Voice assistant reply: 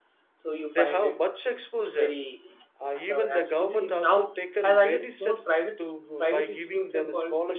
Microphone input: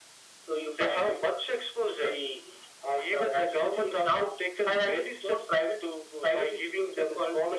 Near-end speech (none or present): none